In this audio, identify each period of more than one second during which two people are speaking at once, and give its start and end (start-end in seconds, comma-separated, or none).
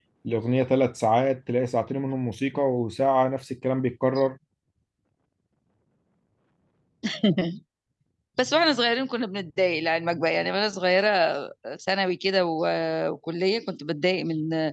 none